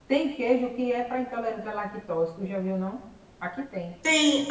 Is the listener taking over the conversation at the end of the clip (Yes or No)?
Yes